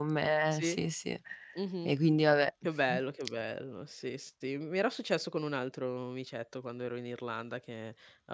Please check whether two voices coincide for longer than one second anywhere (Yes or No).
No